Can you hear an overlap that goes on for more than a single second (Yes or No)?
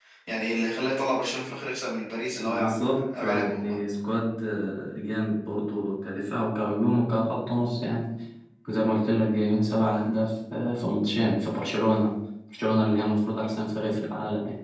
Yes